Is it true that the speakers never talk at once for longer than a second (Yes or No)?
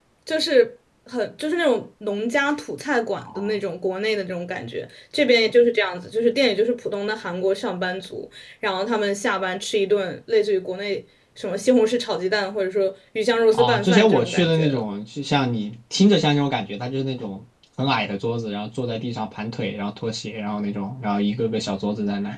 No